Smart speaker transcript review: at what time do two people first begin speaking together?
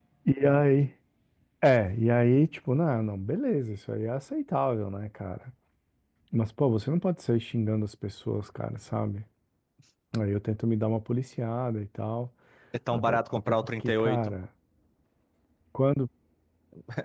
12.9 s

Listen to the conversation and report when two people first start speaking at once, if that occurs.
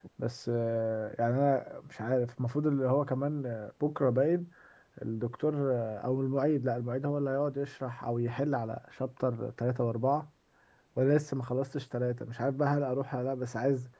none

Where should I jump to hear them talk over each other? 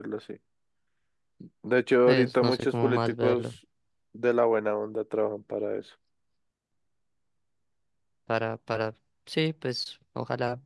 2.1 s

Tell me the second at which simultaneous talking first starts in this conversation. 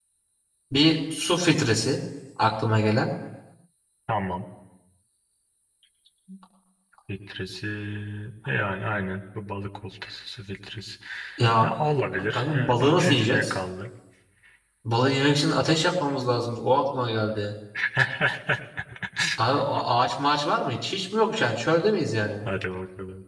12.3 s

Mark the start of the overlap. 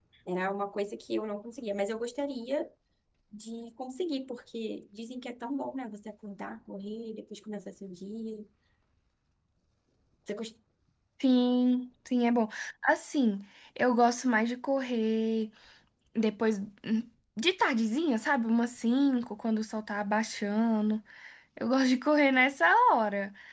none

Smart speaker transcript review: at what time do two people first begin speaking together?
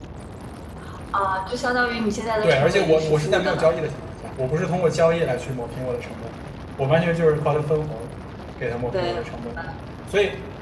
2.4 s

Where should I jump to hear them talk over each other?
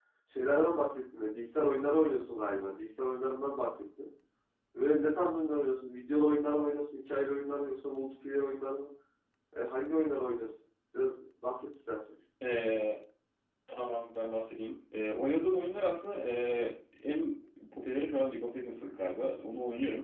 none

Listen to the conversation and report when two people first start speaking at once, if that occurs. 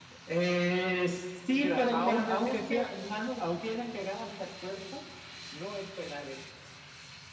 1.6 s

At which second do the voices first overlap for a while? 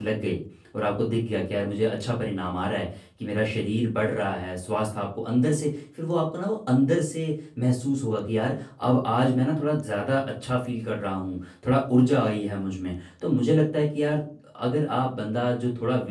none

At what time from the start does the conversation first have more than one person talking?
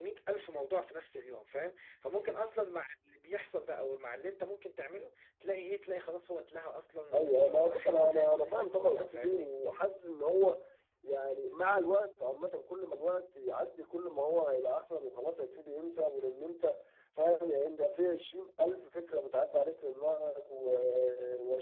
7.1 s

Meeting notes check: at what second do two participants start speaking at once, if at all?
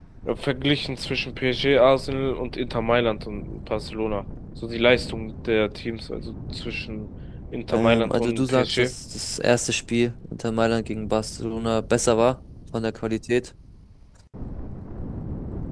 7.7 s

